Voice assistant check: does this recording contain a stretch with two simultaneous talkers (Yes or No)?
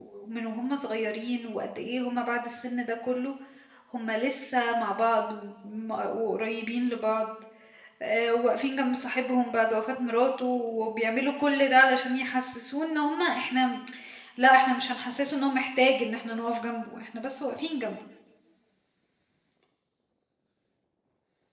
No